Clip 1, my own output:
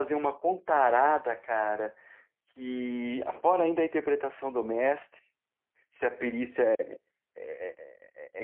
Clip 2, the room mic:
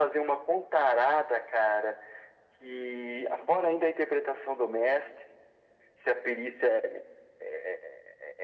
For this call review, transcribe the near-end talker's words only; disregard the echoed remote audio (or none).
none